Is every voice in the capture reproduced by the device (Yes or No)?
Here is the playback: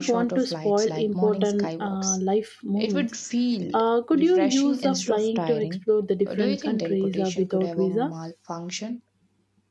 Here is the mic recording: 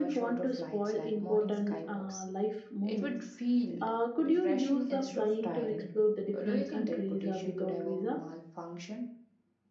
Yes